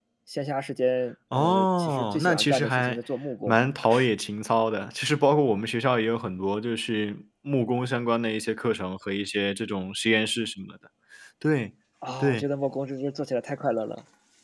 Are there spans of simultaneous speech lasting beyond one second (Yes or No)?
Yes